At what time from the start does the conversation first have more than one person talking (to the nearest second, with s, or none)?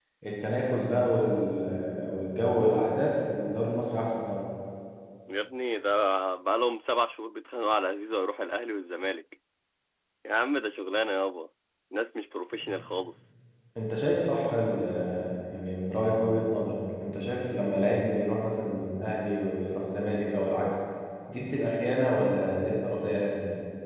none